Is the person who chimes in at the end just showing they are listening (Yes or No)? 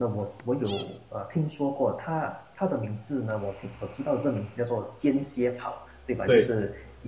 Yes